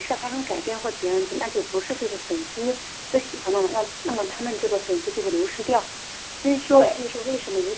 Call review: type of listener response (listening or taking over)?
listening